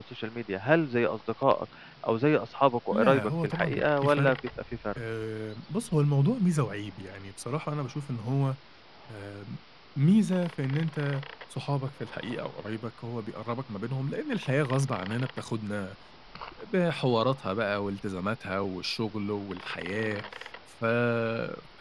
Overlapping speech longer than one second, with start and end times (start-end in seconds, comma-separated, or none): 2.9-4.3